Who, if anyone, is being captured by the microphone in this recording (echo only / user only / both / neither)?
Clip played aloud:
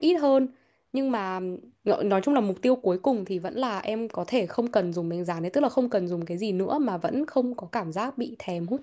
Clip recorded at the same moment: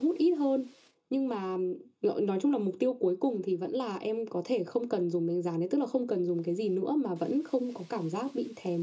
echo only